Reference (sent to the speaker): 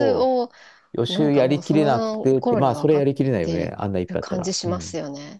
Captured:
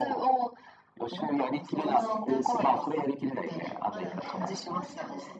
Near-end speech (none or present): present